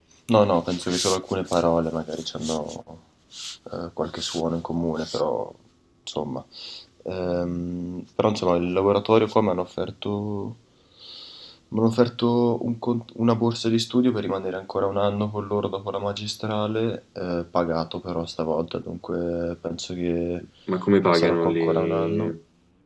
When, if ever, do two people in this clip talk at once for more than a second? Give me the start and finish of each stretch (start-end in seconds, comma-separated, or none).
21.1-22.3